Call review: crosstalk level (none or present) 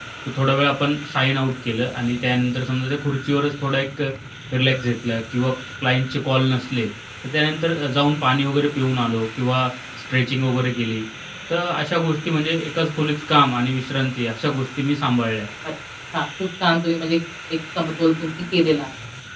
none